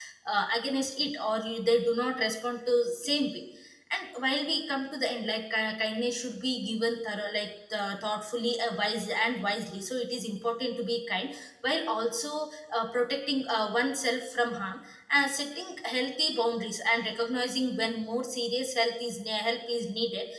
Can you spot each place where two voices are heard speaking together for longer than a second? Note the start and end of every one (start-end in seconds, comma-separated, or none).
none